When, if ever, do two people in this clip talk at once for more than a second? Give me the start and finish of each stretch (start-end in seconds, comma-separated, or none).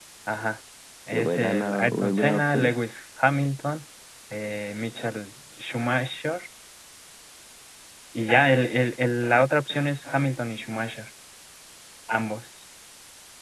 1.1-2.7